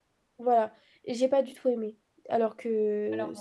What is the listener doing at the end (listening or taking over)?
listening